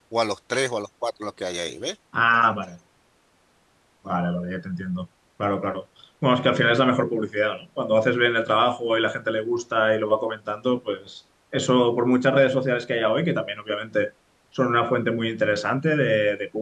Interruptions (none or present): none